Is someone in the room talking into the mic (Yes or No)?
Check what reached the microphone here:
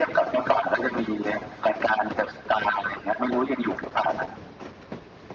No